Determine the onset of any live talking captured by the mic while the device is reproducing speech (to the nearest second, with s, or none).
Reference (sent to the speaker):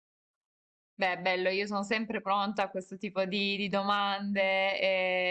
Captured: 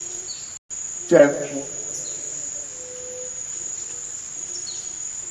1 s